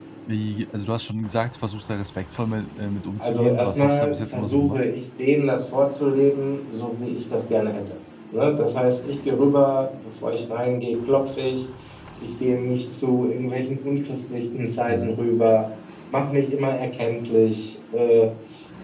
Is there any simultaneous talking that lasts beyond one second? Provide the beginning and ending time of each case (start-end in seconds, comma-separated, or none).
3.2-4.8